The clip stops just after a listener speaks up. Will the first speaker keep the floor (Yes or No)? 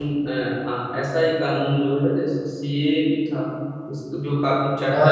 Yes